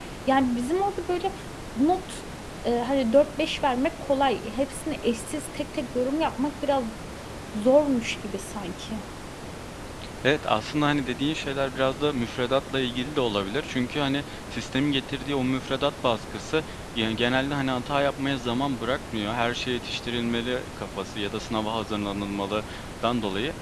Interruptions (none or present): none